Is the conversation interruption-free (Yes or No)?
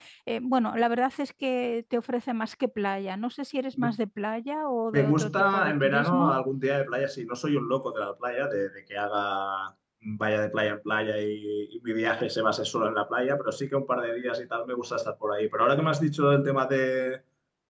No